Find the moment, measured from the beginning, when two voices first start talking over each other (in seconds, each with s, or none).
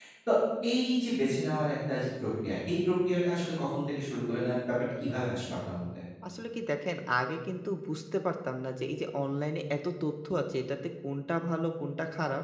none